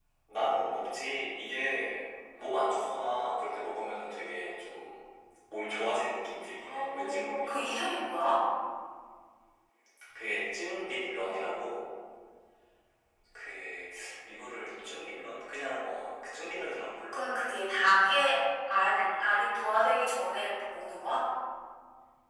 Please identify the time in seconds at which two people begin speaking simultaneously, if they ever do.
7 s

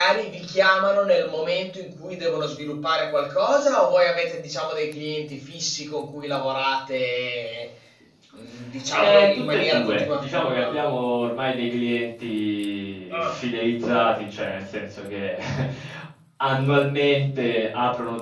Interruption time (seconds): 9 s

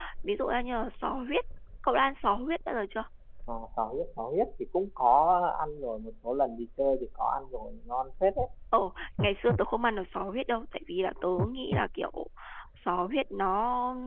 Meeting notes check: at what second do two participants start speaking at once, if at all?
none

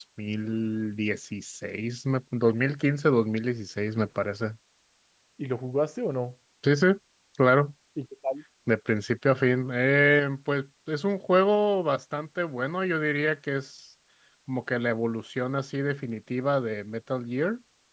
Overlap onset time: none

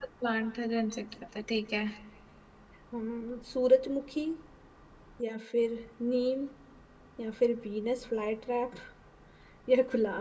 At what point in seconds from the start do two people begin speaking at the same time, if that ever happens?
none

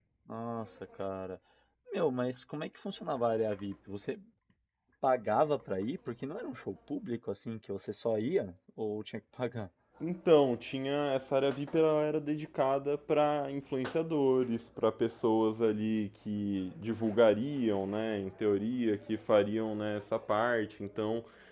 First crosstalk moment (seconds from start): none

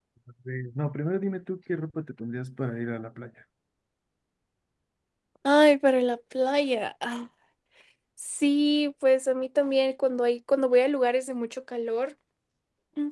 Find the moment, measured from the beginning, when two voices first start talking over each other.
none

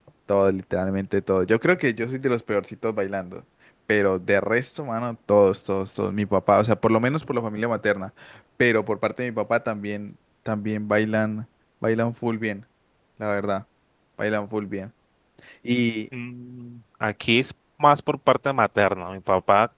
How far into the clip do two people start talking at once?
none

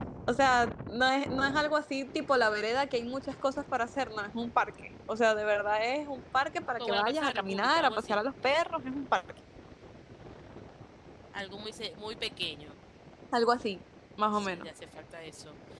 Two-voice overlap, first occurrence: 7 s

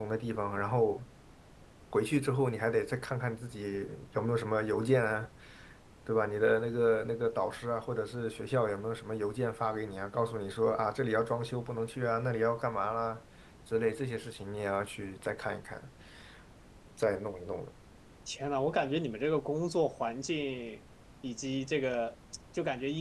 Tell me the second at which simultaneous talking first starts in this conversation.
none

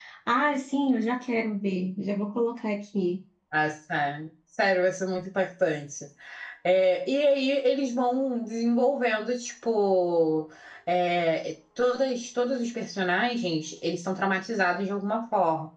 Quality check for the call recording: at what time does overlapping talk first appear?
none

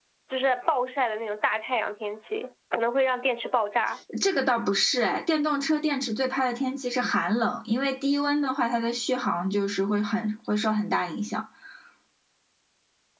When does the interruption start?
none

